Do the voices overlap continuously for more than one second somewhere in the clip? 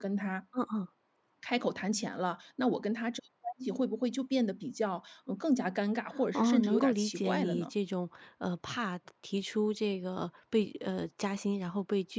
Yes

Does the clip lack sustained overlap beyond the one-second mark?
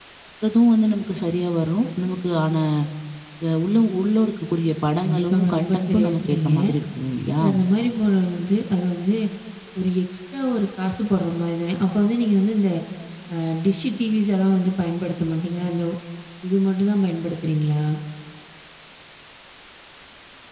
No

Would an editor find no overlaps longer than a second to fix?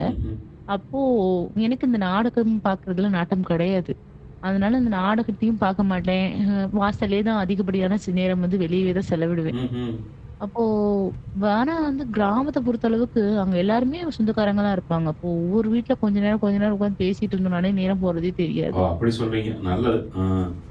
Yes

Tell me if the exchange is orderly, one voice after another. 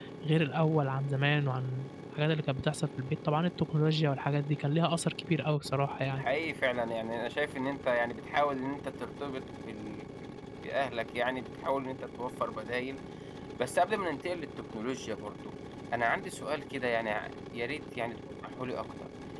Yes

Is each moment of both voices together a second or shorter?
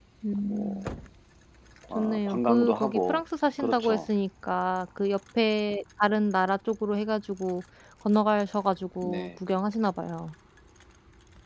No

